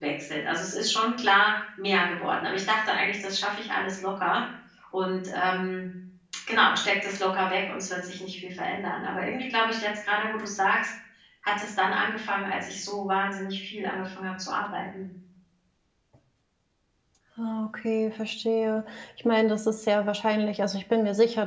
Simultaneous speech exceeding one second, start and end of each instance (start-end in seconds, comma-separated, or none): none